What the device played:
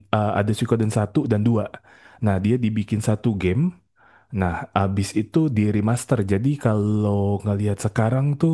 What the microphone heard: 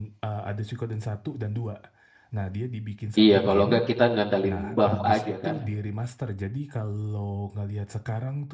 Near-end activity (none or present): present